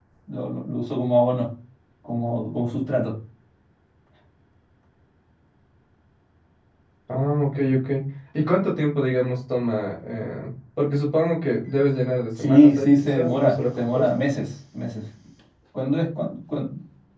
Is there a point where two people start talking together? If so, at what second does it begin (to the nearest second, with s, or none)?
12 s